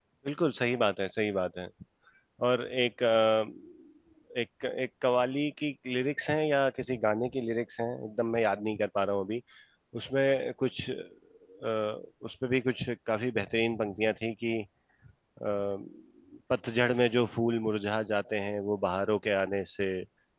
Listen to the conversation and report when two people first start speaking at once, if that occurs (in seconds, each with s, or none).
none